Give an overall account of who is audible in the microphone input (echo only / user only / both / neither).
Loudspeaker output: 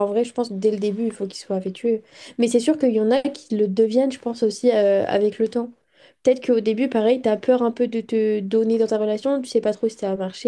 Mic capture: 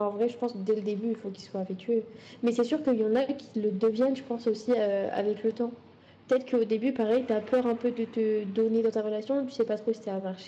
echo only